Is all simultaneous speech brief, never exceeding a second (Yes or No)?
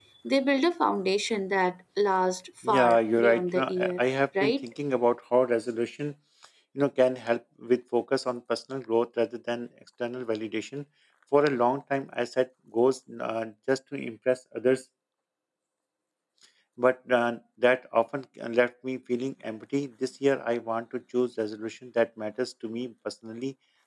No